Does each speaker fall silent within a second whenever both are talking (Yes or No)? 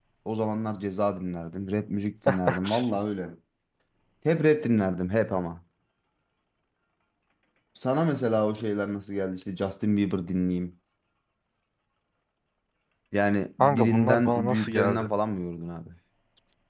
No